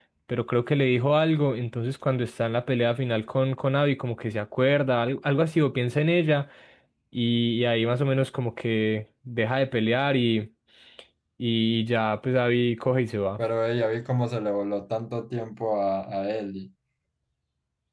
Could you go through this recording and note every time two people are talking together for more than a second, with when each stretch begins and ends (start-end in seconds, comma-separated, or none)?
none